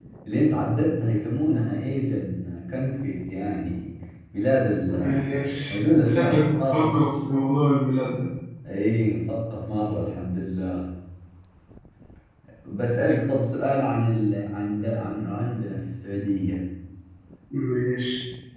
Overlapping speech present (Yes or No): Yes